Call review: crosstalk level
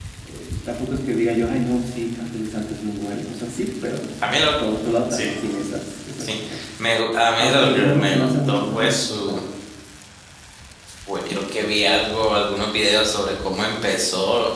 present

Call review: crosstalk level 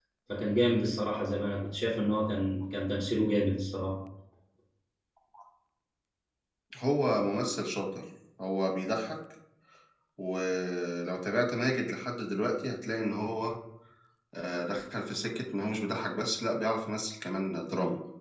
none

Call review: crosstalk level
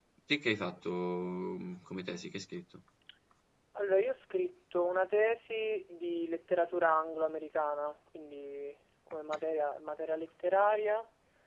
none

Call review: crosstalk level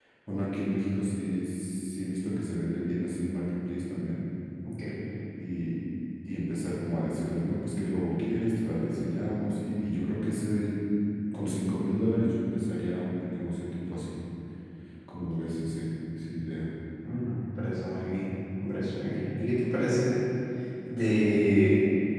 none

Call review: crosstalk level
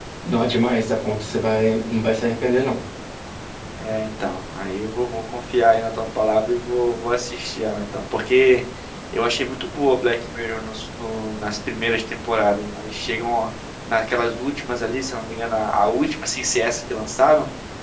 none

